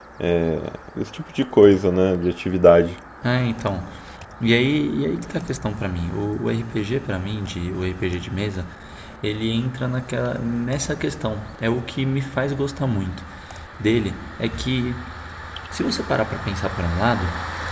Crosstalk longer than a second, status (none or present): none